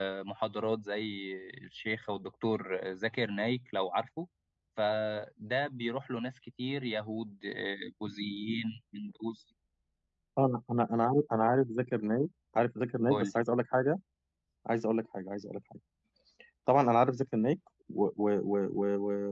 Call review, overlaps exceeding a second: none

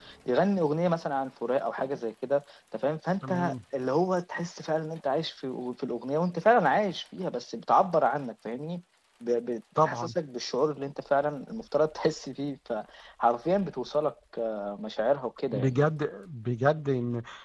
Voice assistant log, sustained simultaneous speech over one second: none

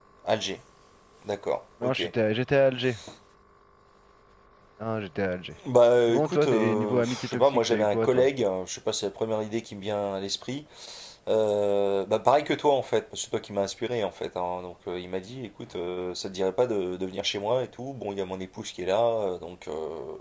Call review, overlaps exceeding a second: present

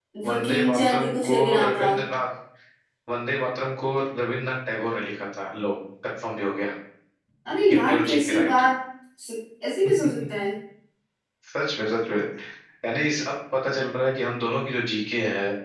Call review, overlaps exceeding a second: present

